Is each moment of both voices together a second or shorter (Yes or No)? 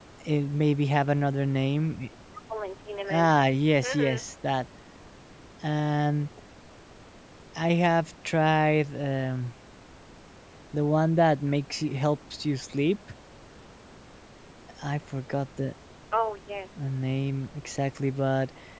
Yes